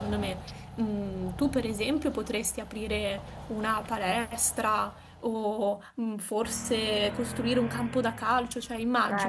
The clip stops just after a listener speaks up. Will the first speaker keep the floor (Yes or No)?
No